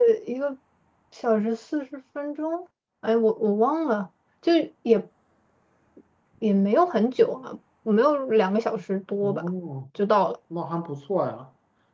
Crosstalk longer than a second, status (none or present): none